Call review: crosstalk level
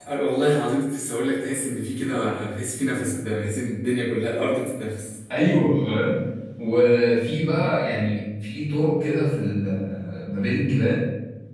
none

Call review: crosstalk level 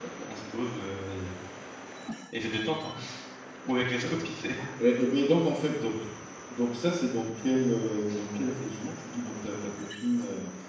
none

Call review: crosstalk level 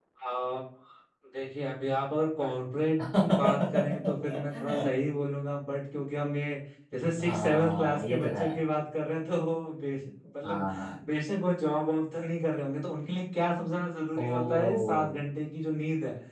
present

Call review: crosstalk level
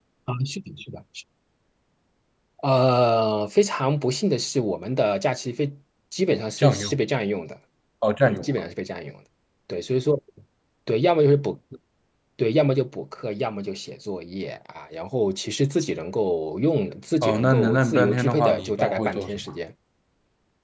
present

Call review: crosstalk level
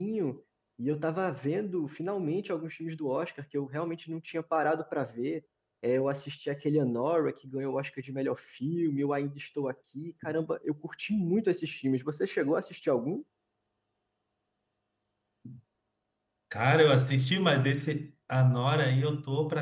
none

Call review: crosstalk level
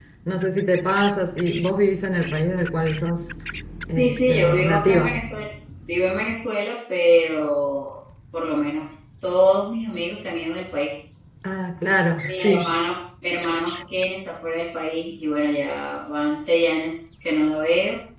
present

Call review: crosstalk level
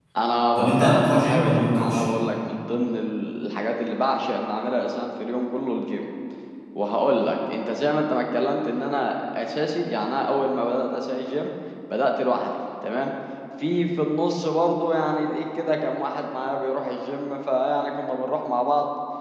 present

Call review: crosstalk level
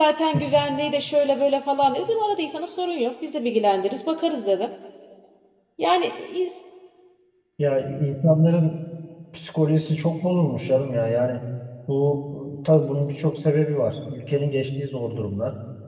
none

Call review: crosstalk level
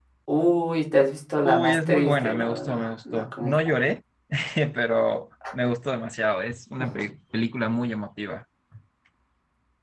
present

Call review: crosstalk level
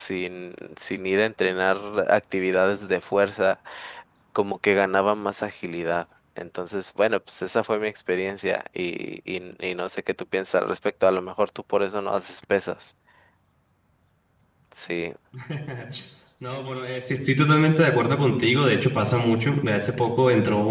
none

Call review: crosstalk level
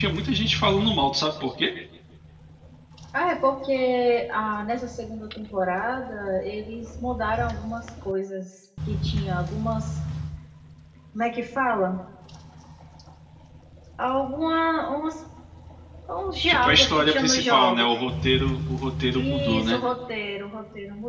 present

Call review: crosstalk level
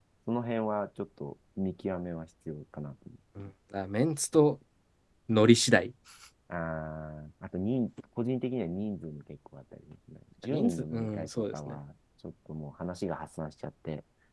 present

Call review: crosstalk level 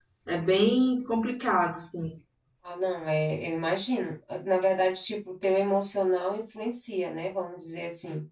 none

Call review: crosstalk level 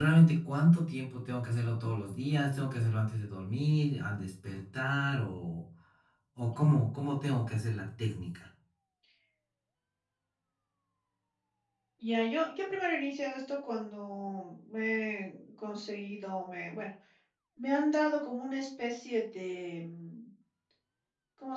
none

